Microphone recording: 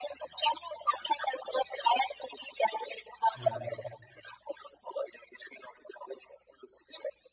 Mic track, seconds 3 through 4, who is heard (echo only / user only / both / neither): both